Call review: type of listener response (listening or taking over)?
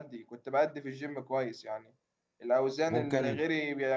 listening